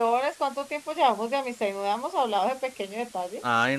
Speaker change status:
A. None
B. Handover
B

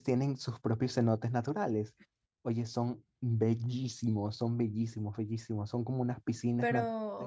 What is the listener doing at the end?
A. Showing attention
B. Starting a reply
A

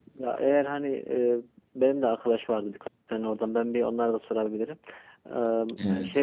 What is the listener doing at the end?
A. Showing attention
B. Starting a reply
A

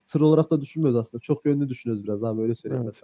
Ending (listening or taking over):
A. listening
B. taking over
B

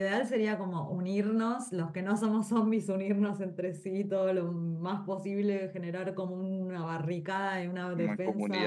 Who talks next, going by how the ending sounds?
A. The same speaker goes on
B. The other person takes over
A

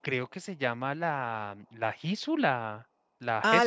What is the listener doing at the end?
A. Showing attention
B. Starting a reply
B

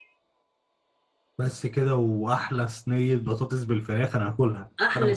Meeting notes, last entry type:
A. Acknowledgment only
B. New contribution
B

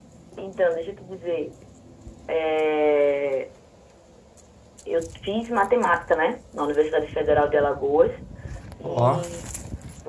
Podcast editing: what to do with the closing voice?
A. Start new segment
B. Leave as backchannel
B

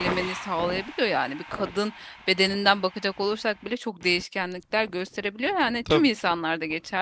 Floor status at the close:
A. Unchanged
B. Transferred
A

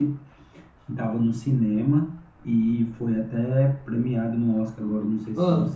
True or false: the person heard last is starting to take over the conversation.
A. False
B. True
A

